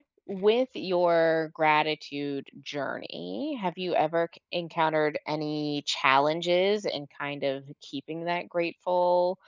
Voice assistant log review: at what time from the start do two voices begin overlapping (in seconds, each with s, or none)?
none